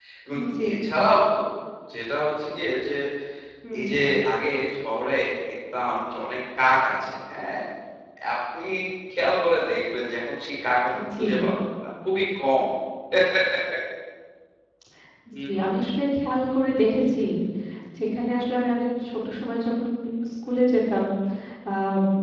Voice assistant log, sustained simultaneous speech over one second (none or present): none